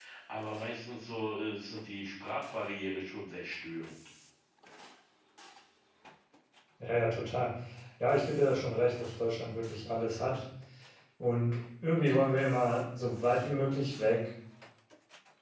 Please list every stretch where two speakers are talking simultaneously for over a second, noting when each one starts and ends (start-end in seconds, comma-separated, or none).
none